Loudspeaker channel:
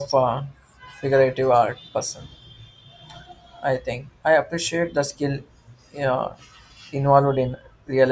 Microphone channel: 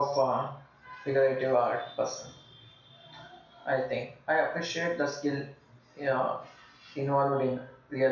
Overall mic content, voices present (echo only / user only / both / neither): echo only